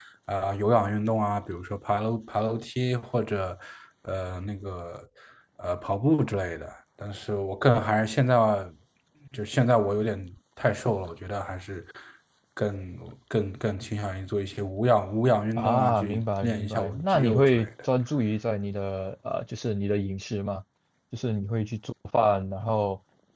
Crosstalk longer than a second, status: present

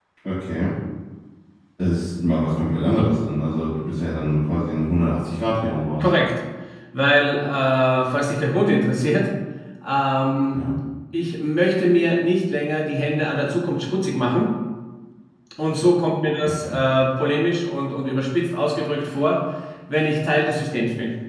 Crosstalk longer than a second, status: none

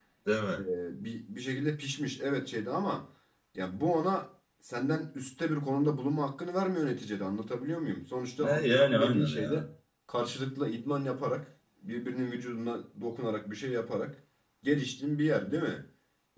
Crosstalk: present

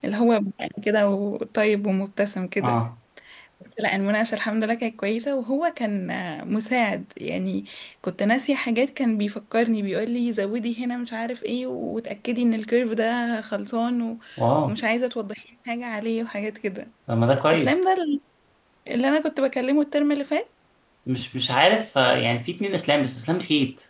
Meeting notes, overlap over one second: none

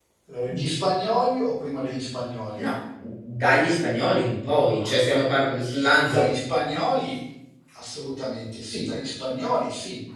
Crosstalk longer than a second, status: none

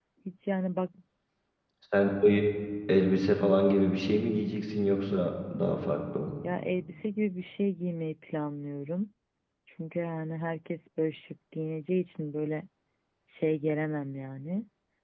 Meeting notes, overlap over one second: none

